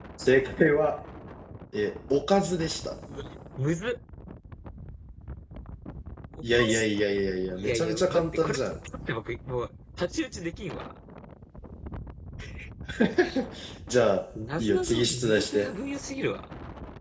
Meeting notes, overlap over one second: present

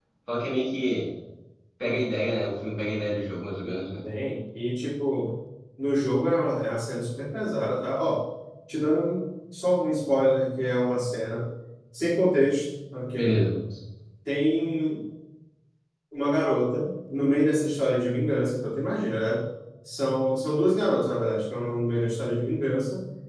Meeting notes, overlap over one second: none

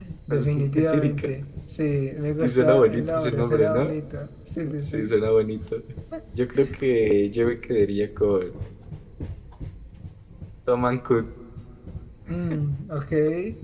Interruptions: present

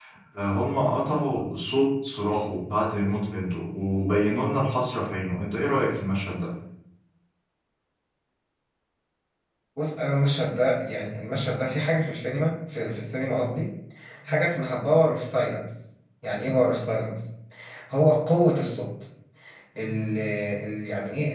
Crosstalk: none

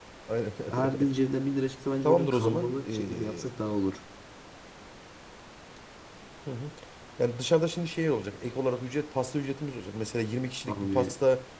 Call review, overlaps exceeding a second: present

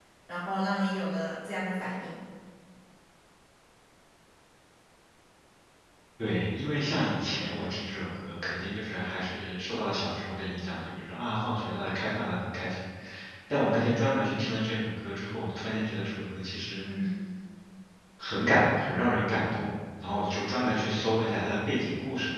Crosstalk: none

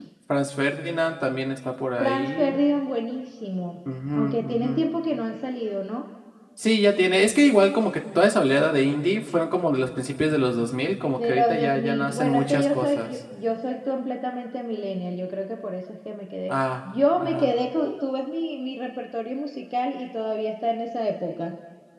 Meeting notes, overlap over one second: present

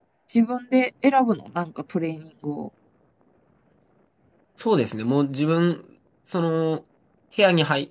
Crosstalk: none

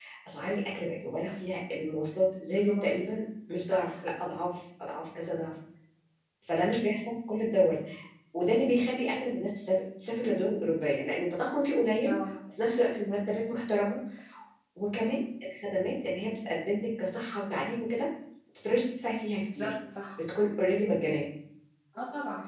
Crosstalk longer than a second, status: none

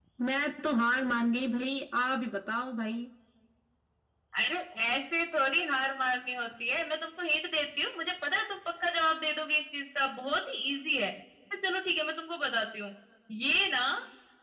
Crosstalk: none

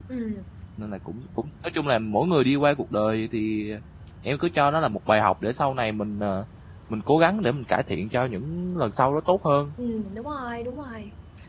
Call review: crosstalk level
none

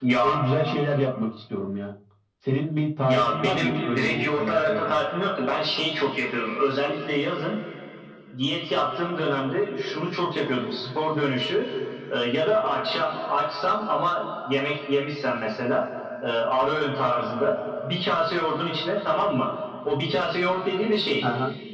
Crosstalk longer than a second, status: present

